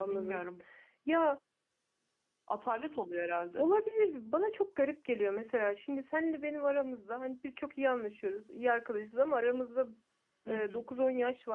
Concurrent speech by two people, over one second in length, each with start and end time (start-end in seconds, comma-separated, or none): none